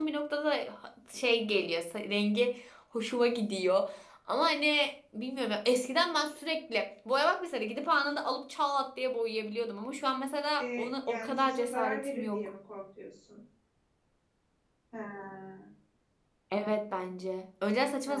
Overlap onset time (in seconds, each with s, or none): 10.6 s